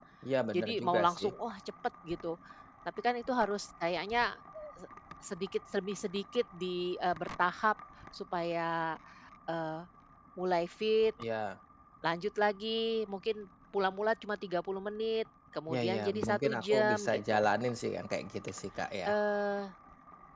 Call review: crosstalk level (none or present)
present